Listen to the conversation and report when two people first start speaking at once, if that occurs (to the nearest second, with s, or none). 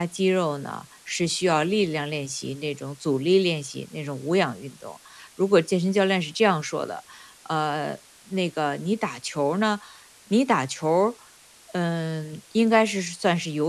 none